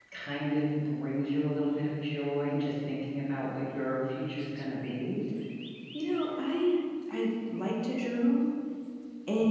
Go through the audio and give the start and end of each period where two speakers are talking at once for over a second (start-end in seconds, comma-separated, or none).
none